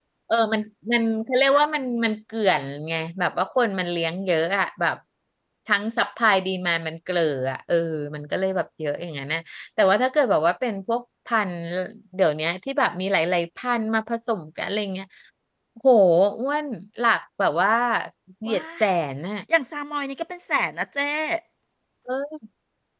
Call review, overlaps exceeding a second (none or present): none